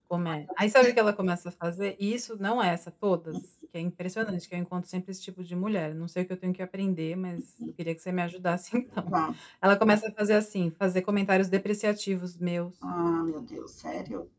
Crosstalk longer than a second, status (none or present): none